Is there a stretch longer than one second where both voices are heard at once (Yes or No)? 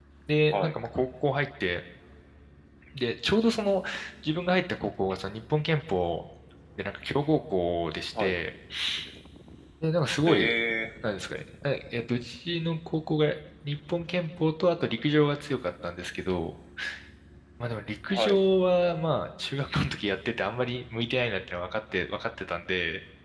No